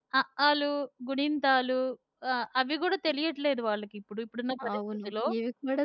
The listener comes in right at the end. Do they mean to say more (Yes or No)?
Yes